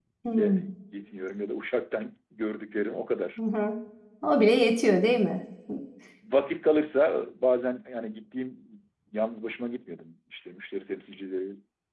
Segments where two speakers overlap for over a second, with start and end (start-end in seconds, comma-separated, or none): none